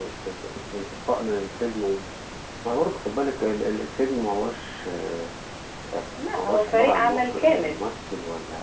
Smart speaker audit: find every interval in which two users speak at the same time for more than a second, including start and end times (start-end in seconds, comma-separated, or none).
6.3-7.8